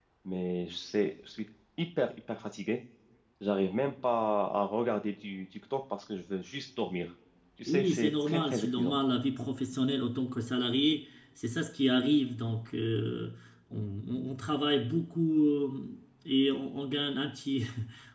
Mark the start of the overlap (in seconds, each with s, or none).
7.7 s